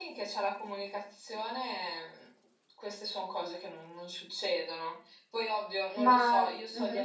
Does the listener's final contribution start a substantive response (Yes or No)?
No